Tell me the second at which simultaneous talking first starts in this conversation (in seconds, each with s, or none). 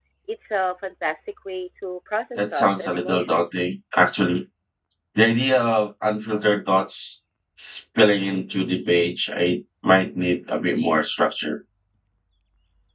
2.4 s